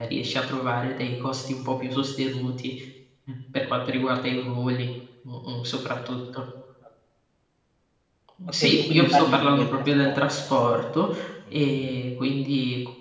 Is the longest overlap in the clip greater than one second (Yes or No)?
Yes